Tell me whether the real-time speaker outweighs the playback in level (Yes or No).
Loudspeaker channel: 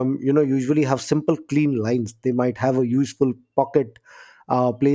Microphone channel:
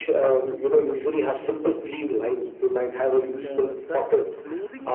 No